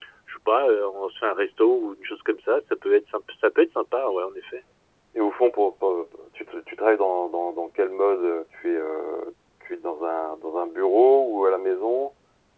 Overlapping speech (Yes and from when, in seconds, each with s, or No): No